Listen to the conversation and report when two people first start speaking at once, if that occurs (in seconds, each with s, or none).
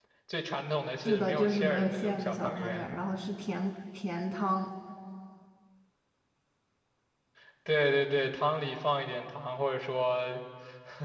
1.0 s